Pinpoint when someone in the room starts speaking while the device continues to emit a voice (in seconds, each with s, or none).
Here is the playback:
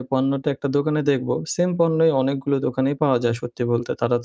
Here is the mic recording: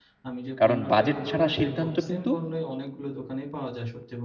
0.6 s